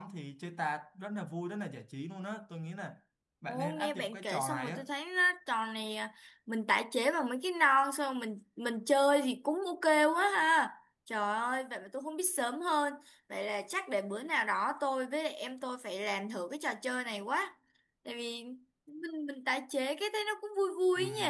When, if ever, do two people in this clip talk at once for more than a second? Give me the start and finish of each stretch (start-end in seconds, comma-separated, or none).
3.5-4.8